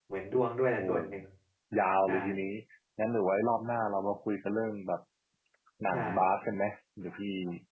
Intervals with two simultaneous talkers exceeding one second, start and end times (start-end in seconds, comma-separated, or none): none